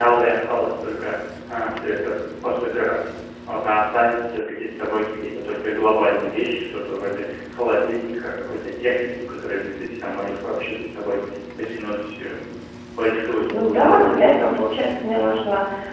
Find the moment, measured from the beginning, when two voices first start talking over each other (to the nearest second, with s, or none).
14 s